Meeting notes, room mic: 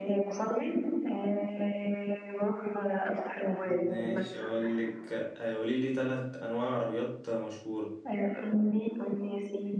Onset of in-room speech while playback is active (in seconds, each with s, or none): 3.6 s